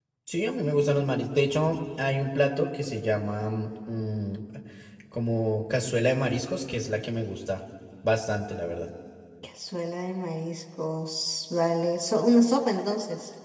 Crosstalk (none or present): none